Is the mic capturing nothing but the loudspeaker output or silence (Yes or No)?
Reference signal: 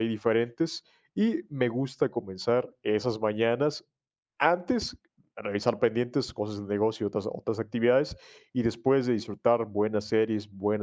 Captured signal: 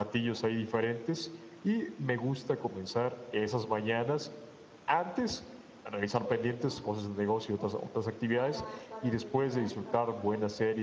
No